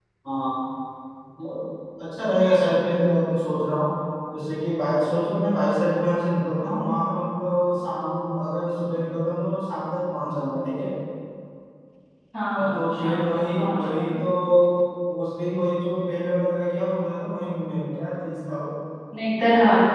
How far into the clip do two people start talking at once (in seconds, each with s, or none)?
12.5 s